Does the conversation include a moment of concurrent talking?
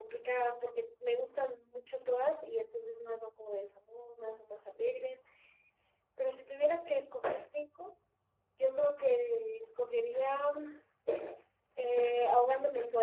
No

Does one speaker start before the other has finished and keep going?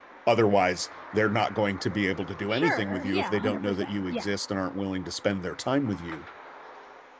Yes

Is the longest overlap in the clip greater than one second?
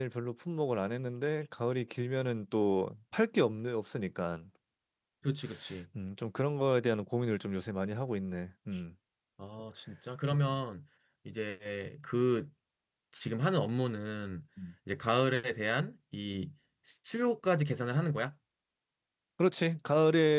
No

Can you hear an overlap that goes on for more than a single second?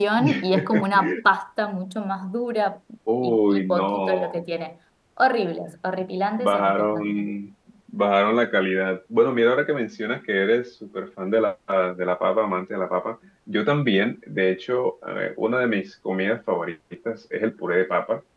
Yes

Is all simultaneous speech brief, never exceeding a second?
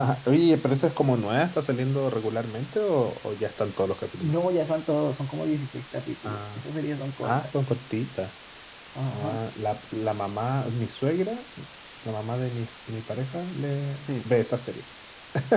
Yes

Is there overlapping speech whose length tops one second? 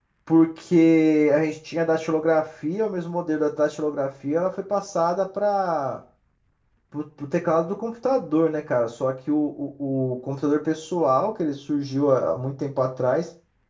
No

